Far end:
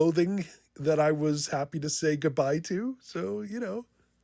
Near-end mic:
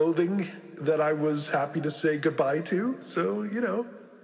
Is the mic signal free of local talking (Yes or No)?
Yes